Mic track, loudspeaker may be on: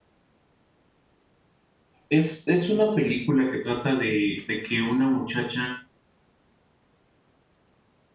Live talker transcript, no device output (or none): Es, es una película que trata de, de que una muchacha